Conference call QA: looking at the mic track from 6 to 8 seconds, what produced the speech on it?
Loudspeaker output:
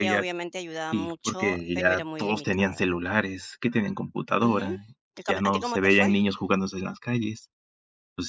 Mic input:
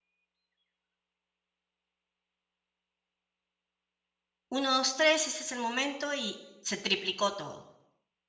user only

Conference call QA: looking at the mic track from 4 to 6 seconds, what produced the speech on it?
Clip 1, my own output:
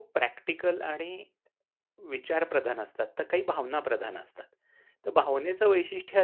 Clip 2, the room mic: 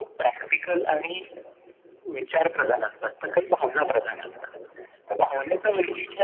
echo only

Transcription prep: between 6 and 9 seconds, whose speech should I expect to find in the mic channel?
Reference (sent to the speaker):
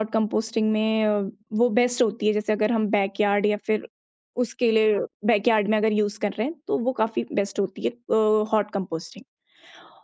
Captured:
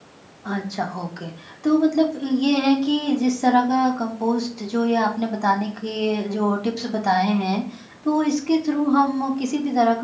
user only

